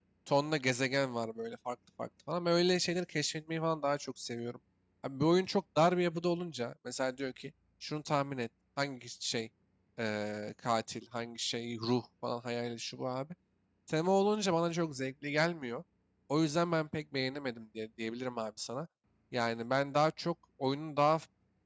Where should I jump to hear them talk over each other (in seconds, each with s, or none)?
none